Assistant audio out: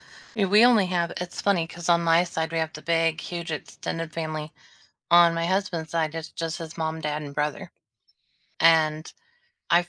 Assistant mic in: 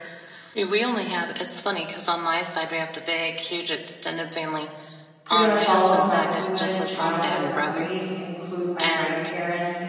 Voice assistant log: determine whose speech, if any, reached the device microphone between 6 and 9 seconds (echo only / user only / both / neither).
both